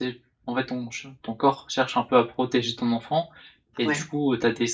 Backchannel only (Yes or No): Yes